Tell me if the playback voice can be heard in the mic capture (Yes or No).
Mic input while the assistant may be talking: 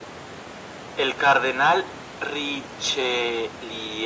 Yes